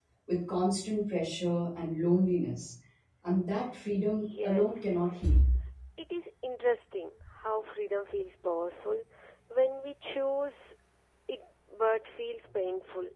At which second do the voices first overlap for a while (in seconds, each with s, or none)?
4.1 s